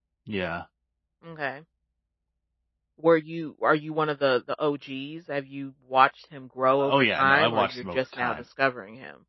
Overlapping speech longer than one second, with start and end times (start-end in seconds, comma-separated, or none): 6.8-8.4